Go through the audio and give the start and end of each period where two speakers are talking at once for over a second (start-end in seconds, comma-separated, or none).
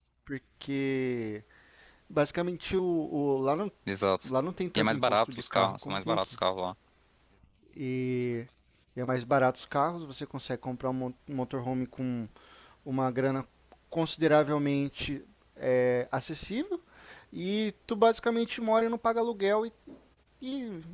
4.8-6.4